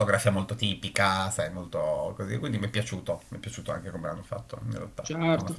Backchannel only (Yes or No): No